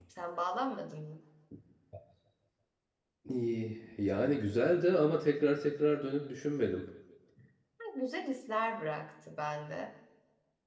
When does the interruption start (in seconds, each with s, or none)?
none